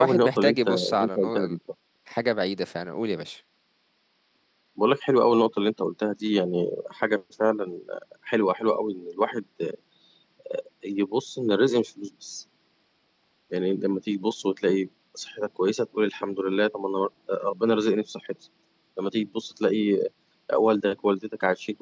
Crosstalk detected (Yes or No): Yes